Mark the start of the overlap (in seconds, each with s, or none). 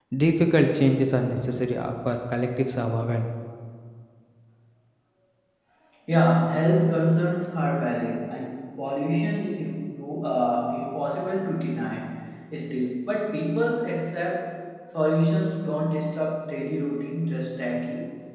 none